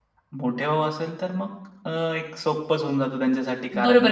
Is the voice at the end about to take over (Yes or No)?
Yes